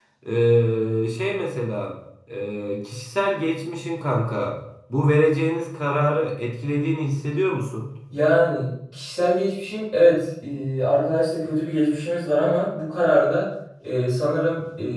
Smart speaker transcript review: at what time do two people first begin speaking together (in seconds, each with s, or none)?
none